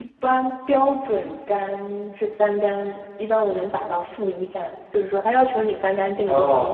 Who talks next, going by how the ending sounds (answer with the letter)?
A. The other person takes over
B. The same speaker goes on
A